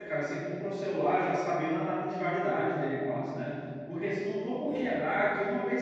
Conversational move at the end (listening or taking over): listening